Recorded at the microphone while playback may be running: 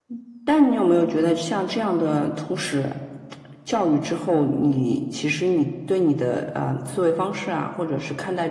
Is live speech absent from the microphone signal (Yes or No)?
Yes